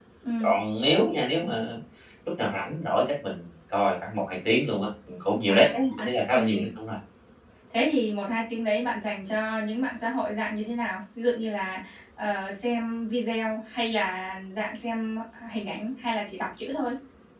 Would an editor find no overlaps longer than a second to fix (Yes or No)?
No